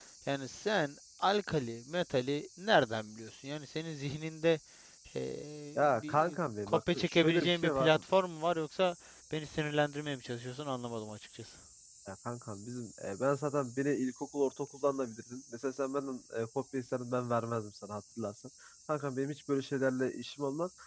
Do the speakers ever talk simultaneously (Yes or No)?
Yes